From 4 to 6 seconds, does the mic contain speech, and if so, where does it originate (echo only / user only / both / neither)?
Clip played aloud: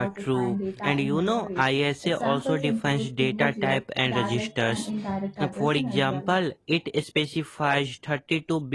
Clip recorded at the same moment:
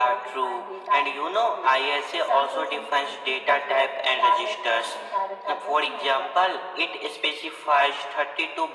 echo only